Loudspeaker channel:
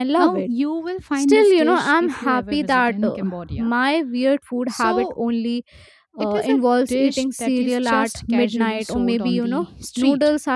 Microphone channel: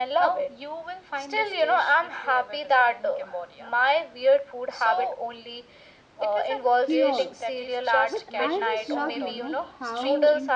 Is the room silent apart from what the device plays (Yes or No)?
No